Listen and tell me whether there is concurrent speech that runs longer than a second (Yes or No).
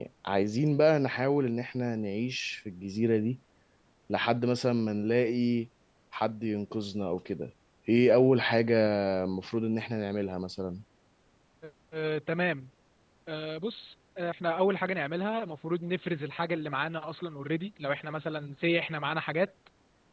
No